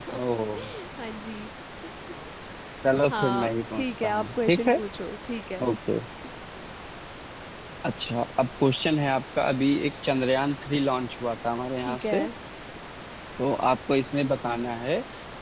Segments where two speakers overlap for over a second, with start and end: 3.1-4.8

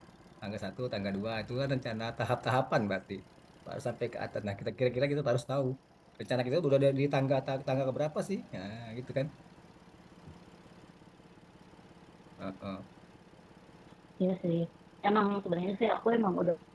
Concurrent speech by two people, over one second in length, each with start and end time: none

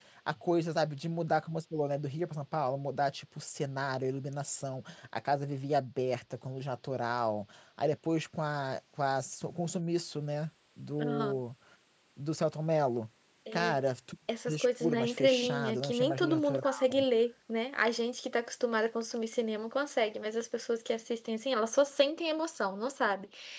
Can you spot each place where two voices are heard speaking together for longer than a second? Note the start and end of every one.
14.5-17.0

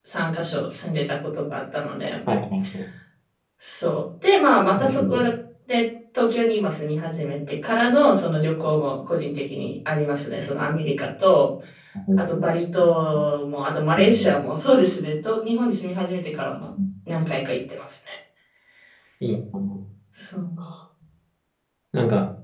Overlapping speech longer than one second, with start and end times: none

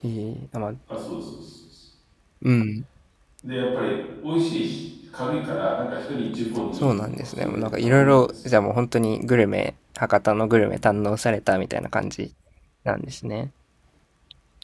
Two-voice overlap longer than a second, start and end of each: 6.8-8.5

